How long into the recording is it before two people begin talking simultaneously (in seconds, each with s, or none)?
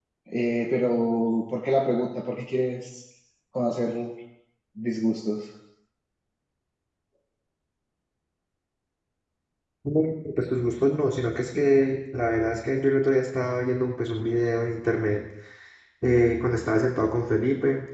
none